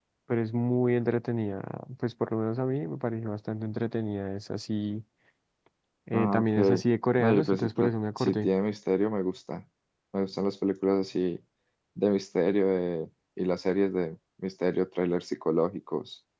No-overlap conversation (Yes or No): No